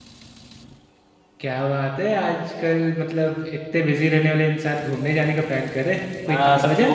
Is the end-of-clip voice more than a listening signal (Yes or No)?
Yes